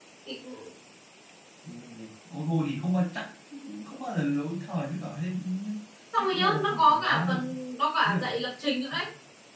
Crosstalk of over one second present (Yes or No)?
Yes